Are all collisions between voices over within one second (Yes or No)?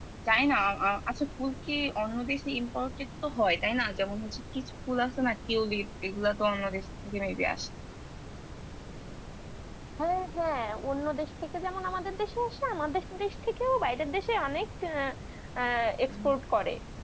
Yes